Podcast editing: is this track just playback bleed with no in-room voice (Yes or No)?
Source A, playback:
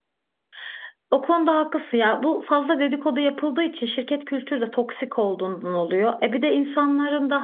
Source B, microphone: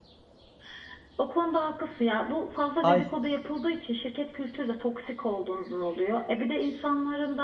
No